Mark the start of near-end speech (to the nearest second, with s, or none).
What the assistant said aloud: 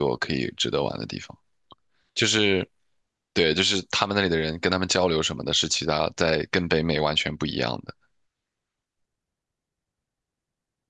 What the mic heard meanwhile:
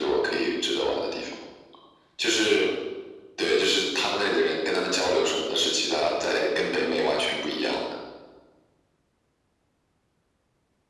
none